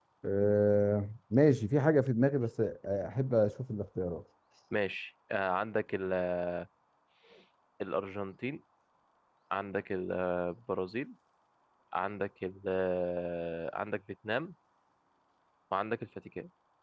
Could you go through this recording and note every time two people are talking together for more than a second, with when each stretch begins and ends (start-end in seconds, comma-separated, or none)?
none